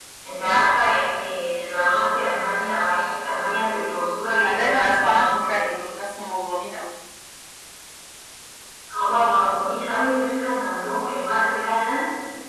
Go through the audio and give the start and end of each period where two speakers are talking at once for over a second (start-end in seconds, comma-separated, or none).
4.4-5.6